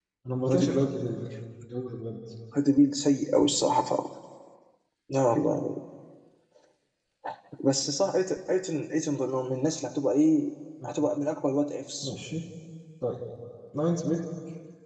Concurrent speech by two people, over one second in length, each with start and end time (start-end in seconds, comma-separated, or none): none